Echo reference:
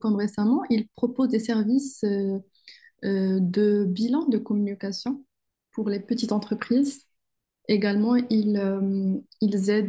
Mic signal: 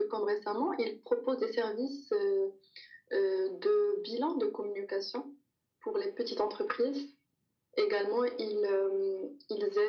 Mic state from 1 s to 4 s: echo only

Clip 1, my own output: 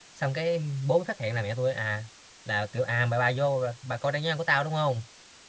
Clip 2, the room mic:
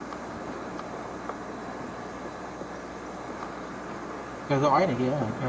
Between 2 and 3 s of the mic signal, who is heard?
neither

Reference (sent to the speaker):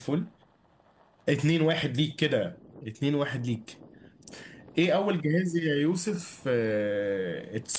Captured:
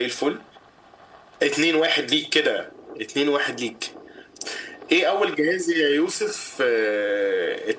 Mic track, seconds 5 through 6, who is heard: echo only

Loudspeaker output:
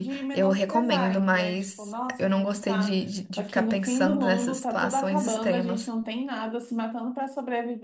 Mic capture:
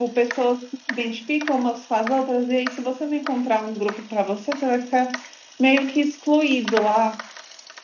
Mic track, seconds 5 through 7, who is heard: user only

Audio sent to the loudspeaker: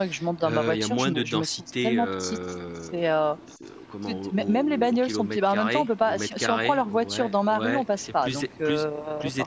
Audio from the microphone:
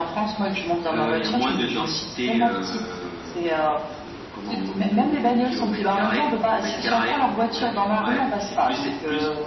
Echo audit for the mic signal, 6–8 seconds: echo only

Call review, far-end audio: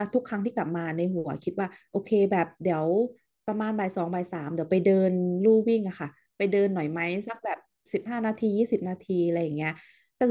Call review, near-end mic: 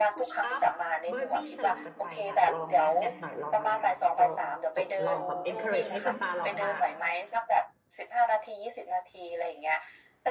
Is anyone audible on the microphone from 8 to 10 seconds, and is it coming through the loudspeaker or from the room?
echo only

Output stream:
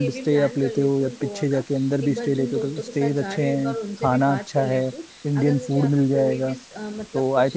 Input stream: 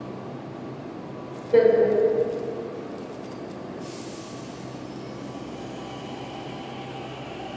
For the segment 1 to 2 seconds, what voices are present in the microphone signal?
user only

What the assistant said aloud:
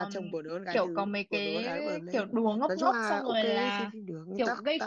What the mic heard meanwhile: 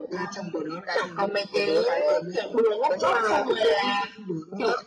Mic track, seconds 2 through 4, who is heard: echo only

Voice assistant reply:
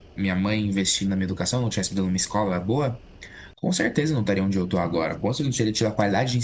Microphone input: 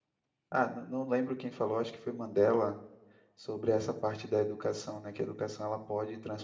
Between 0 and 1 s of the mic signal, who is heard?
user only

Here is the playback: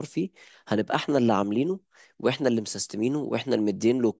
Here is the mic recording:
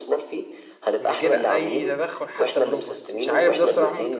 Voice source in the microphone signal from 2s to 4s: both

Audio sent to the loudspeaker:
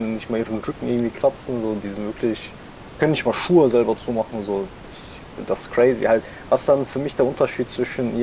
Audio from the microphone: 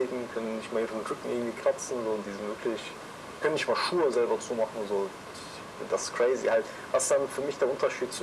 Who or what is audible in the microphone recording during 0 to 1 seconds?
echo only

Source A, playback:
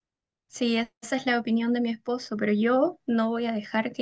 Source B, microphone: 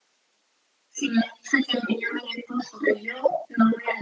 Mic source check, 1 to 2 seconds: echo only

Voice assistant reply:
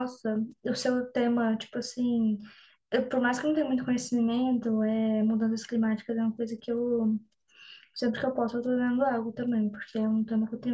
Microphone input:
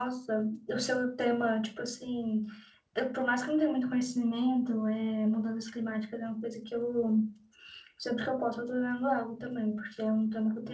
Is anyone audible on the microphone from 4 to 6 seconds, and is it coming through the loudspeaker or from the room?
echo only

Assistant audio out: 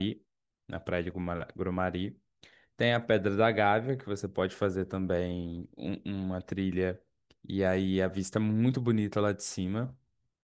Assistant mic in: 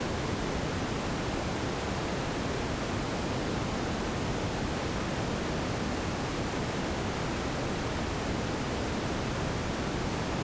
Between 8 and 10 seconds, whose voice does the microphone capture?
neither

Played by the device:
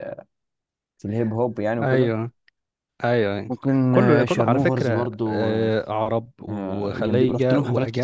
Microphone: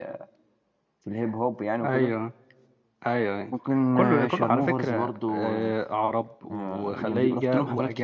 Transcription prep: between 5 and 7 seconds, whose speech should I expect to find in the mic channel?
echo only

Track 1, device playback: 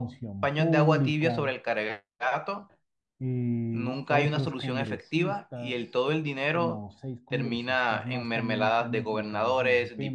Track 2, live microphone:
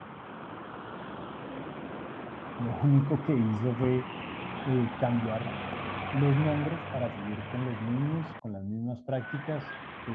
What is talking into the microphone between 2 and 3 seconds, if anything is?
user only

